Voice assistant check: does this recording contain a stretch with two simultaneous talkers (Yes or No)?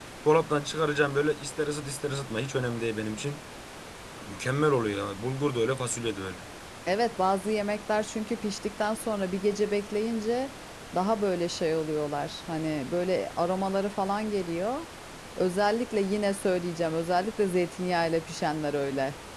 No